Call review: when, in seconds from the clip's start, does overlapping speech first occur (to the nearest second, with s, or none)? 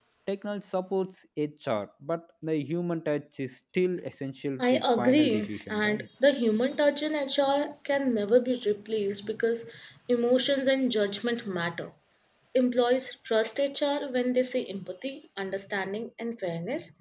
5 s